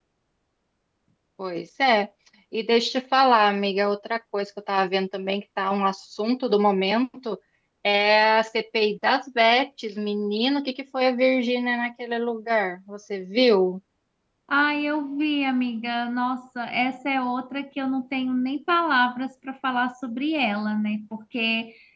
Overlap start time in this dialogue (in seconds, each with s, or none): none